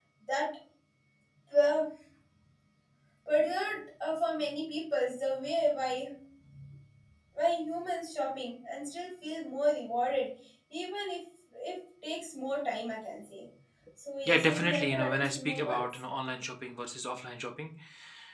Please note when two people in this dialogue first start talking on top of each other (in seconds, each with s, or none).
14.3 s